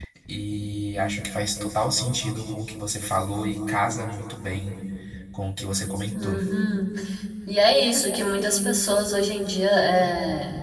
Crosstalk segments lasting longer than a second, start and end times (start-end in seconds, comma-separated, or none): none